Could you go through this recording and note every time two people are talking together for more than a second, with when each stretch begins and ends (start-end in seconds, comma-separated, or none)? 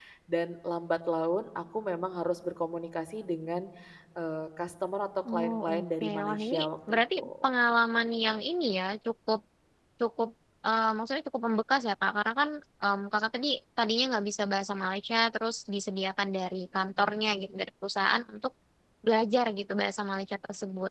5.3-7.3